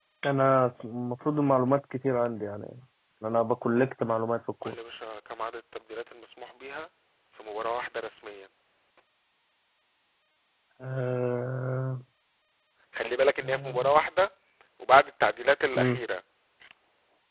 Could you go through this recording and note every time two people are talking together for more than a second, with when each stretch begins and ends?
none

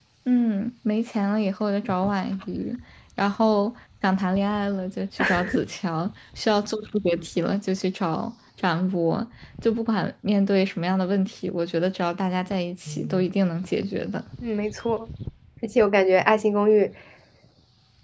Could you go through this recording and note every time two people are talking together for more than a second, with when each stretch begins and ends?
none

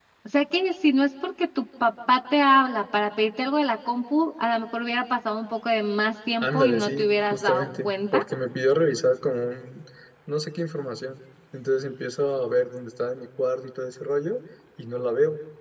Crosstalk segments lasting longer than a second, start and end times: 6.4-8.2

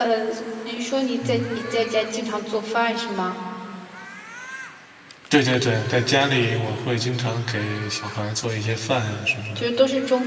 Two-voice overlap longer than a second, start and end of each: none

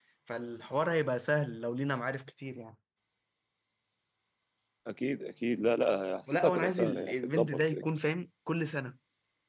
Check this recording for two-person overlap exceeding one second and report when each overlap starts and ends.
6.3-7.8

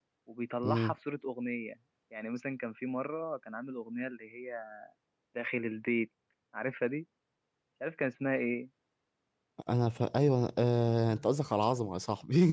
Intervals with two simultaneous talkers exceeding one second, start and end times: none

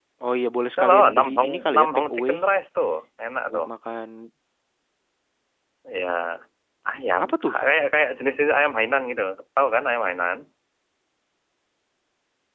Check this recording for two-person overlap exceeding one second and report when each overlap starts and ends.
0.8-2.3

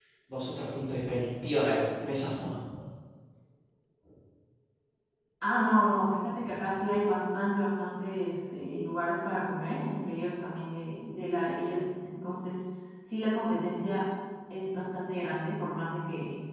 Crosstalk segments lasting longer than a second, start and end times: none

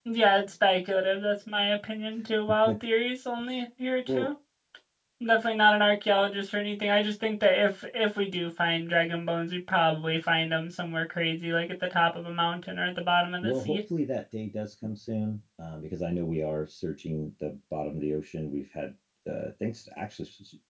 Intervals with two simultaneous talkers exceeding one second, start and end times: none

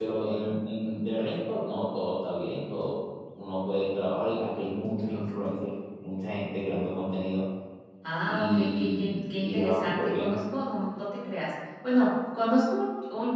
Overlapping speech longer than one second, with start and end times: 8.3-10.4

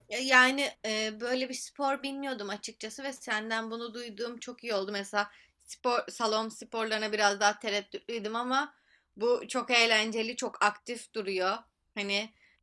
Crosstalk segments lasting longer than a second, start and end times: none

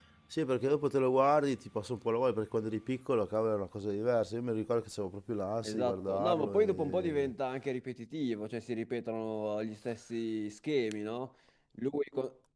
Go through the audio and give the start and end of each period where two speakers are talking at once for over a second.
5.6-7.3

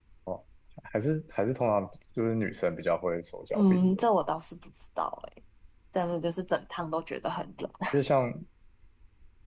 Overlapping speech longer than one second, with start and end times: none

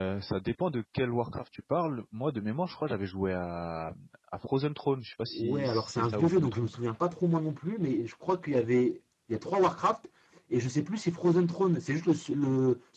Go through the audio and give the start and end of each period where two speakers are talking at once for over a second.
5.3-6.8

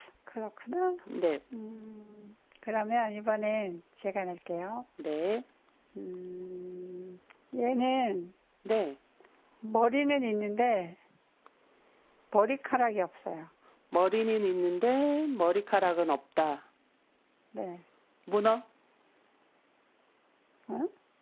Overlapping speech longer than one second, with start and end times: none

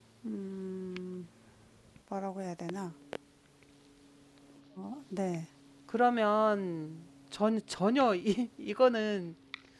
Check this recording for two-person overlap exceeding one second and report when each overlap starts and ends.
none

